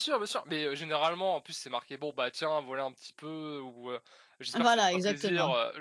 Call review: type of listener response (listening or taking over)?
listening